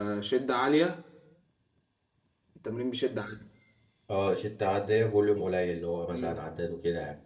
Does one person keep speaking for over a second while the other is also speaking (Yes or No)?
No